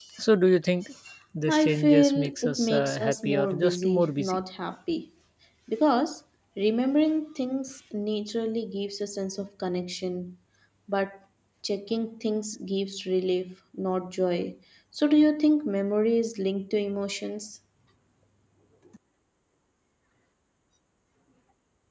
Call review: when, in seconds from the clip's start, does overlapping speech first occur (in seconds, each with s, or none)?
1.5 s